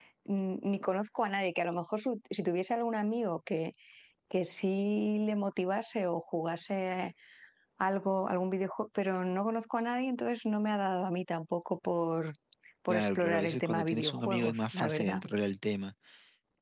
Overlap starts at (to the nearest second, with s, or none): 13 s